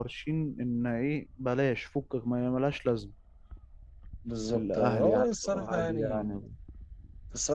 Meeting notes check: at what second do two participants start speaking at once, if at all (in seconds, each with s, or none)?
4.5 s